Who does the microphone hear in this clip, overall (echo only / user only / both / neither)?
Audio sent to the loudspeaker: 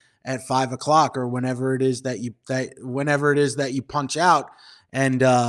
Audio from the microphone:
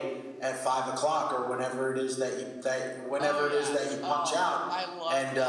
both